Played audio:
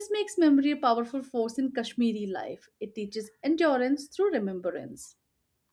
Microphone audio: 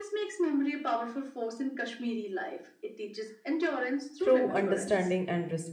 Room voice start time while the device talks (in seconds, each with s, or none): 4.2 s